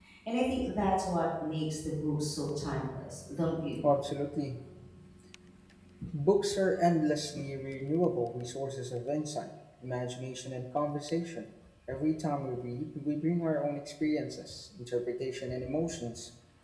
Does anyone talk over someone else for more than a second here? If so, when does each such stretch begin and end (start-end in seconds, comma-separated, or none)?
none